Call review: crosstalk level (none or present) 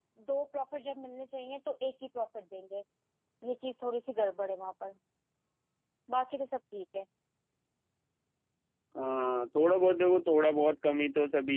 none